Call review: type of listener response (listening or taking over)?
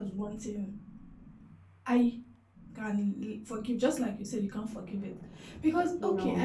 listening